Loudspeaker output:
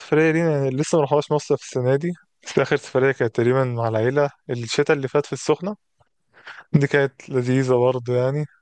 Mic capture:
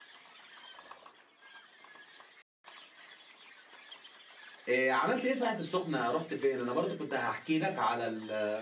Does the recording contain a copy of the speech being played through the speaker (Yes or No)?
No